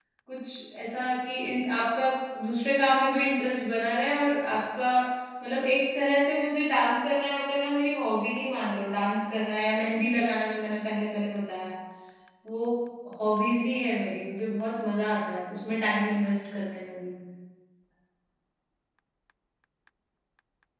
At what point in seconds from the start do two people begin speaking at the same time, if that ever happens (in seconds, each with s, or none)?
none